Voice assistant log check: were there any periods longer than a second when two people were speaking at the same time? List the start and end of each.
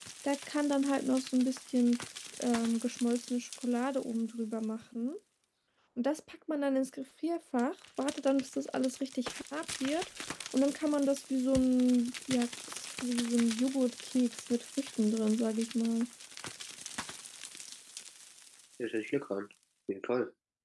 none

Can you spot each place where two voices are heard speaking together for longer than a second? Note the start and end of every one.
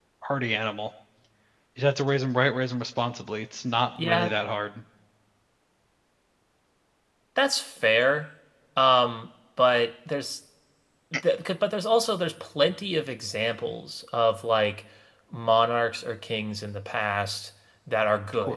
none

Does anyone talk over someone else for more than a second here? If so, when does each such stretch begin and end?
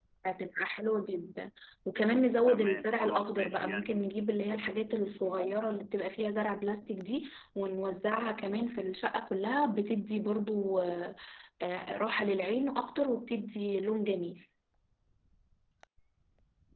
2.5-3.9

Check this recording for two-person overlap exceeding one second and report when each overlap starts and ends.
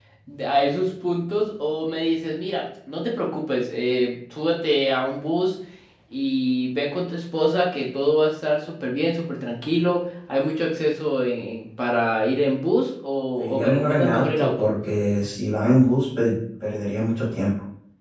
13.4-14.7

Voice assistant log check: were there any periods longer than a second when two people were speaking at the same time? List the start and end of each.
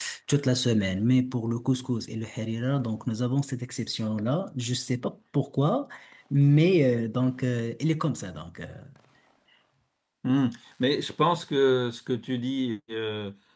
none

